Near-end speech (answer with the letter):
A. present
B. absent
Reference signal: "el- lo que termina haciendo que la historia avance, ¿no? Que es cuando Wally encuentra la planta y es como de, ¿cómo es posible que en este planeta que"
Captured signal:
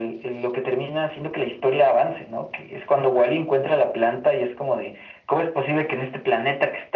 B